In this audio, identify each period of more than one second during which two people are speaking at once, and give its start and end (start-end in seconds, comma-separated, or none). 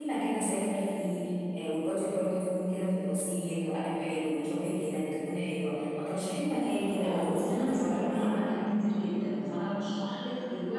7.0-8.4